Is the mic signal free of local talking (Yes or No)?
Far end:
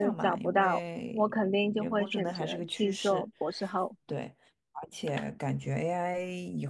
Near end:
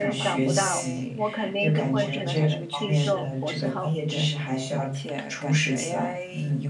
No